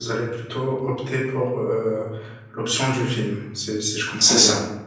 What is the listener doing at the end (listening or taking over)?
taking over